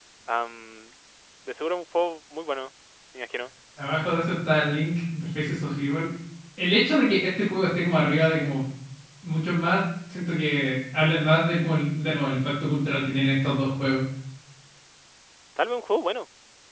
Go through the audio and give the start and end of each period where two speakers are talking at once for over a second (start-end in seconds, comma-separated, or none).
none